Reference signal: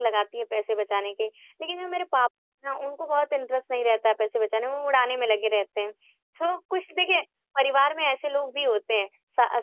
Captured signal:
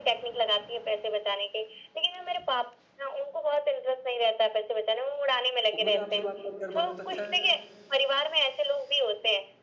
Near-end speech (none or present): present